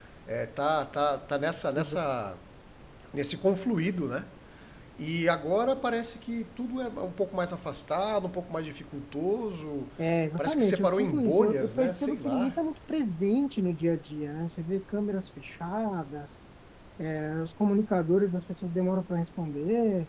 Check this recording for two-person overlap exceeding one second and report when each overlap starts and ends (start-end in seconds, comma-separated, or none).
10.4-12.5